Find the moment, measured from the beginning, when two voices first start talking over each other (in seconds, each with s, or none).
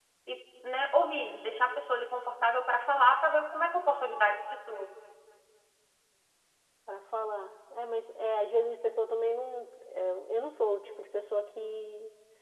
none